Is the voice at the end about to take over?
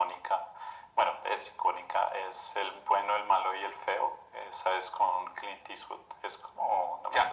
Yes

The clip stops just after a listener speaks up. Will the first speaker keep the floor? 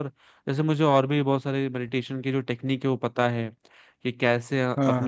Yes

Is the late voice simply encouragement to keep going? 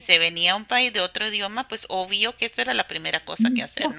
No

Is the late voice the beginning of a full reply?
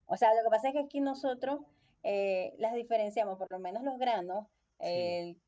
No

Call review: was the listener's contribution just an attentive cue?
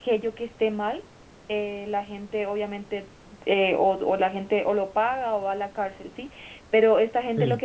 Yes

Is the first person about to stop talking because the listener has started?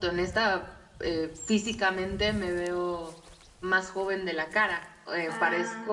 No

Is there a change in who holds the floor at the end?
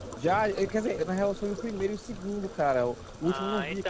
Yes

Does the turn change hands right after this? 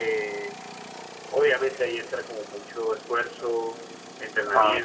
No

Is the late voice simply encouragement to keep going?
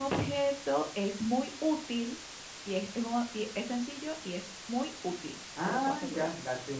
No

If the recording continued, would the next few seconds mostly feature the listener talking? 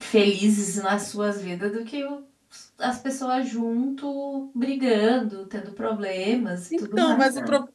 Yes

